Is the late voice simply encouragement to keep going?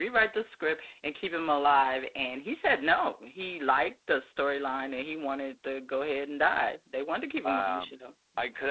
No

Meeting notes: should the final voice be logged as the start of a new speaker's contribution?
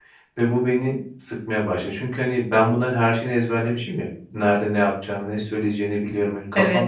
No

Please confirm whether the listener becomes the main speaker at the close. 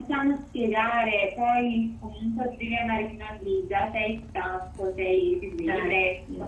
No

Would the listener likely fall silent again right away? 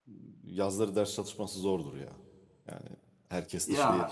Yes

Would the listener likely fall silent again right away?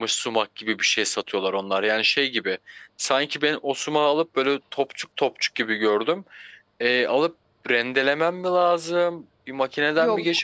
Yes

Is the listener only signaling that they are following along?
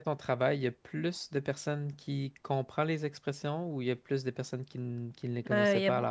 No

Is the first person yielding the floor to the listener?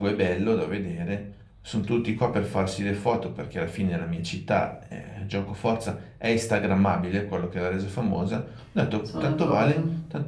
No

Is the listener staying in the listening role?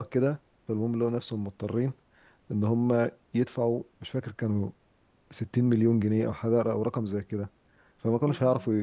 Yes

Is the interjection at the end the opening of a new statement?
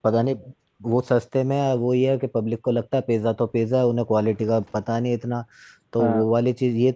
No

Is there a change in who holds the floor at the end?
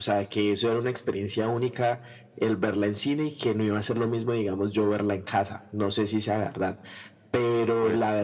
No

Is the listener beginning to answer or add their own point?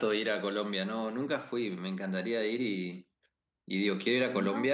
No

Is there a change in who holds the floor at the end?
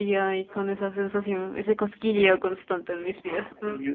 Yes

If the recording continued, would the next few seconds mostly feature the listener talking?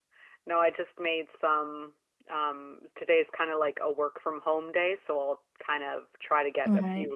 No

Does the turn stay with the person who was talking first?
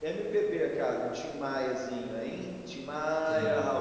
No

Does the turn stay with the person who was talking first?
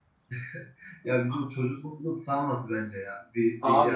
No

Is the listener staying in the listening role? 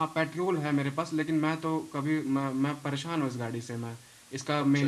Yes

